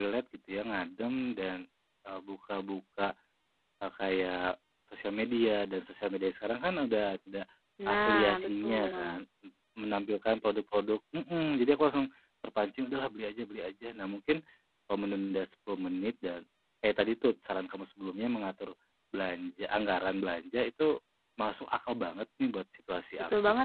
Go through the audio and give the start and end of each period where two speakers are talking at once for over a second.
7.9-9.2

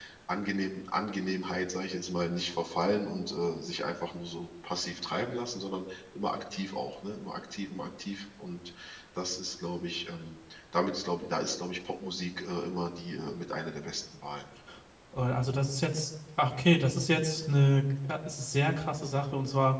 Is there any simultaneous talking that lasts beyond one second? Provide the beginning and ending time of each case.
none

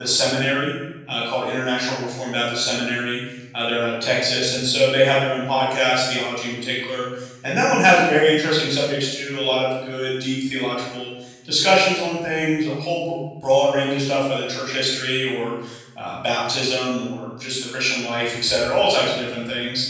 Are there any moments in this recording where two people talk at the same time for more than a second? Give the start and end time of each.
none

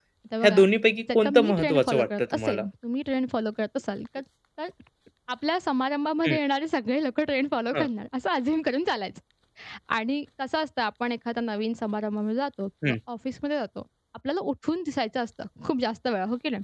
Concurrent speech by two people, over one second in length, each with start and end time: 1.1-2.6

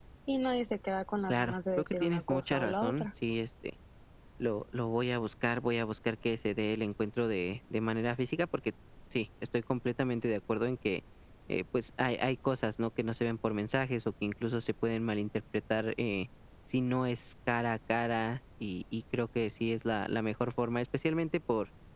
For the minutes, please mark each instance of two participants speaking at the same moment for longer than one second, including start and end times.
1.3-3.1

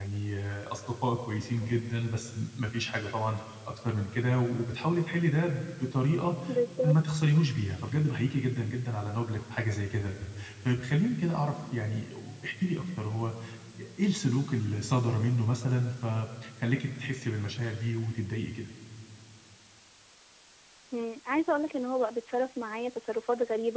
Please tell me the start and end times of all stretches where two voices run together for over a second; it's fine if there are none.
none

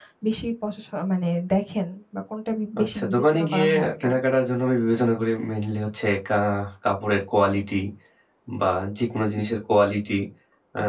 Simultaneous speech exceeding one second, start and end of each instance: 2.8-4.1

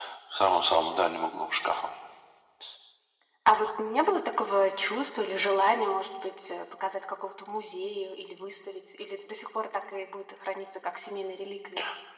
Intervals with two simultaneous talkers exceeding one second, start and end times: none

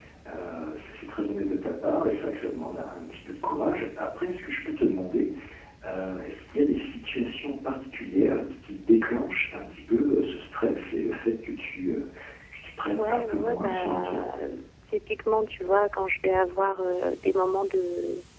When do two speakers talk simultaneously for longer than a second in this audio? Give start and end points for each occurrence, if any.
12.9-14.2

